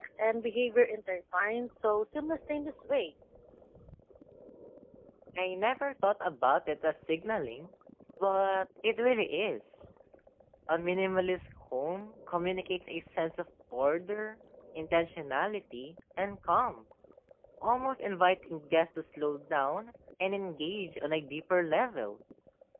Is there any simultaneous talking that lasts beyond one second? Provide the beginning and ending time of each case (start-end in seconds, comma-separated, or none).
none